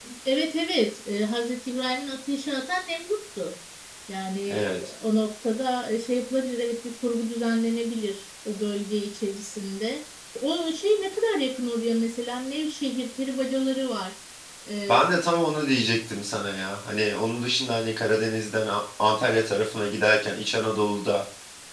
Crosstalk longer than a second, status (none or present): none